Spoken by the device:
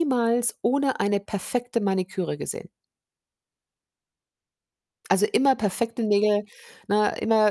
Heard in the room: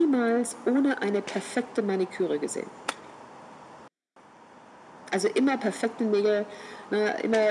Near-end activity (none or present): none